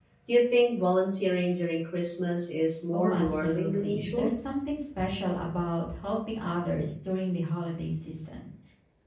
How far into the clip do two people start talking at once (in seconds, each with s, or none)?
2.9 s